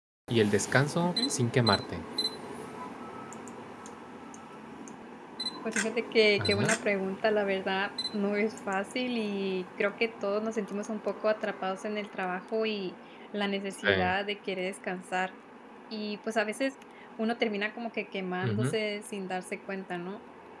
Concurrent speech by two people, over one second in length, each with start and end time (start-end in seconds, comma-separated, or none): none